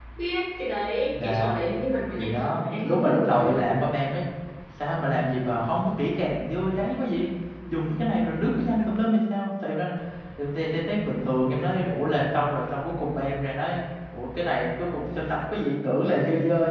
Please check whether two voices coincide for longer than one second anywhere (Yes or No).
Yes